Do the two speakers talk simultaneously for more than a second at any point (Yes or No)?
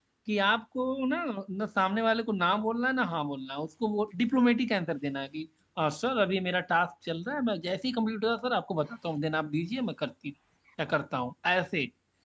No